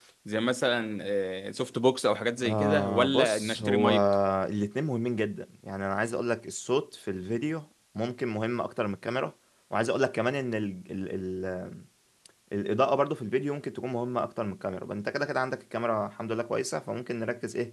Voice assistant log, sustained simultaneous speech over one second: present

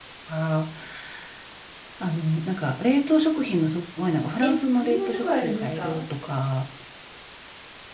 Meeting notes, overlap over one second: present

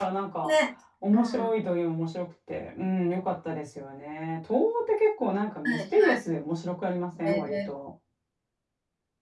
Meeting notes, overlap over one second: none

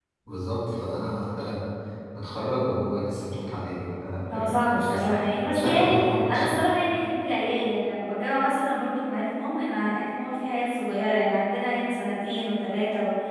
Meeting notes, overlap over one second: present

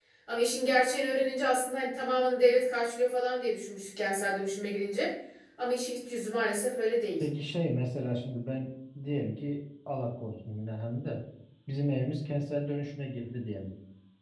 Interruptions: none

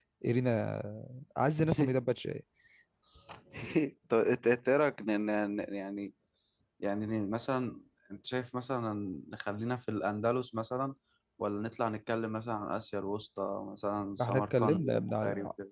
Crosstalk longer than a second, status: present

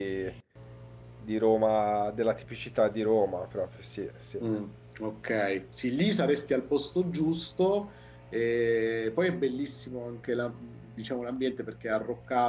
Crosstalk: none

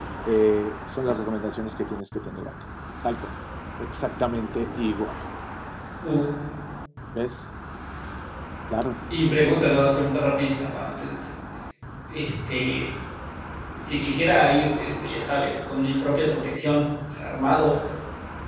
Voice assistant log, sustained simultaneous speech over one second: none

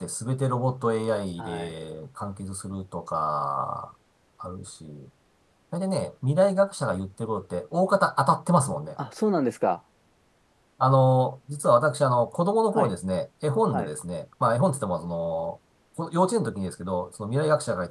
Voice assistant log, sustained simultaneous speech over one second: none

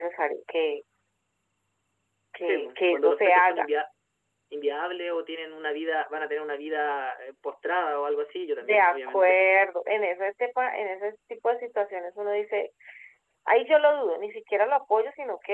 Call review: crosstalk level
present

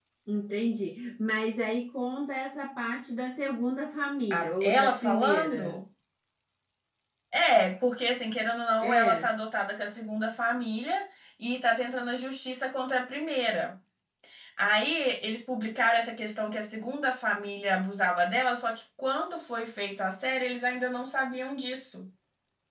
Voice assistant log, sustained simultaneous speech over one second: present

